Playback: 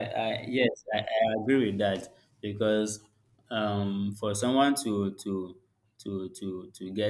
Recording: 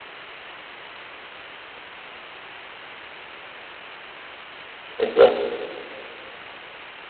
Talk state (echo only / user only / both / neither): user only